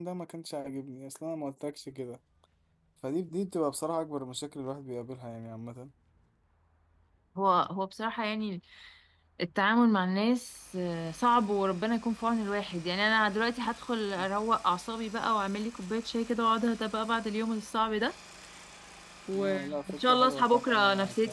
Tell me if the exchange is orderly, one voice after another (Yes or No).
No